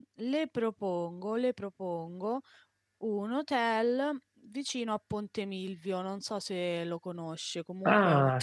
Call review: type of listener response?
taking over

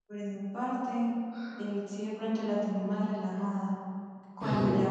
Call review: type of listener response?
listening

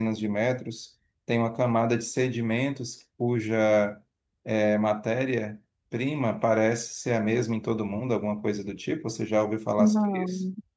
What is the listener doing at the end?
taking over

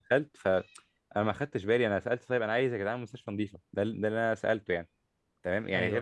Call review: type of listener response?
listening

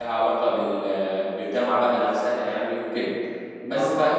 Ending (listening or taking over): listening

